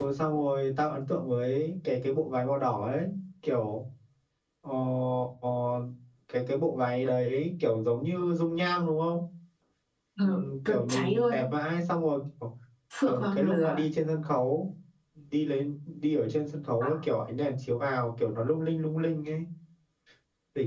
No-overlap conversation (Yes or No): No